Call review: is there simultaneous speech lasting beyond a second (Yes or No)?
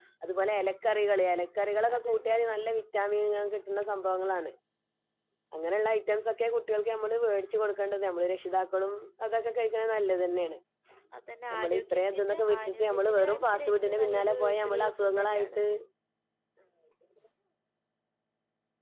Yes